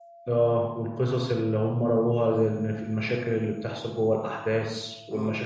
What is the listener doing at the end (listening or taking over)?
listening